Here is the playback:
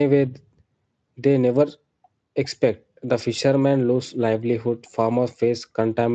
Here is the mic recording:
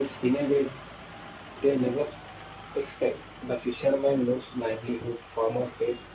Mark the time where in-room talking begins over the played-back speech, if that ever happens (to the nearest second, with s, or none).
none